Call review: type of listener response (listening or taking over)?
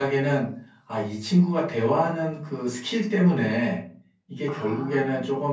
listening